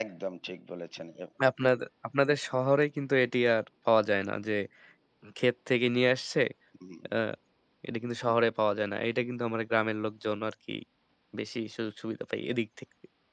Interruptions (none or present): none